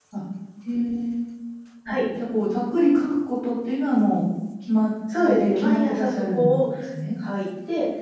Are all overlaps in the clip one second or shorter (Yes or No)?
No